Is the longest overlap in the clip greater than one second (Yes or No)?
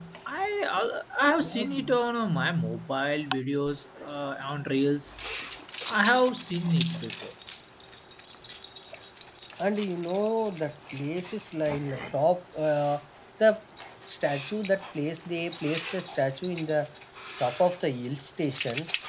No